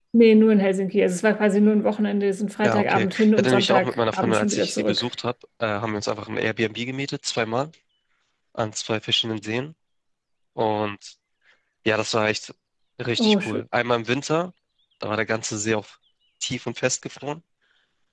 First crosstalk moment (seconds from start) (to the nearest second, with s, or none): 3 s